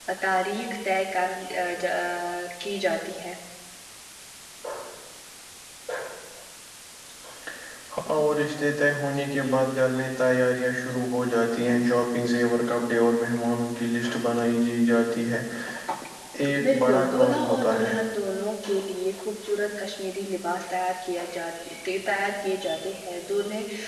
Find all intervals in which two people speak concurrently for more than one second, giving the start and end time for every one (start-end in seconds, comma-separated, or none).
16.6-17.9